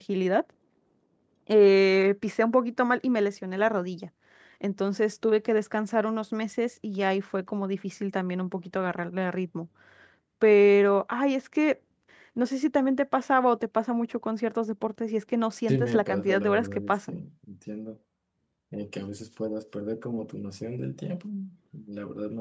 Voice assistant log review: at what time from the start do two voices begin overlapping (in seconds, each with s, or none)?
15.7 s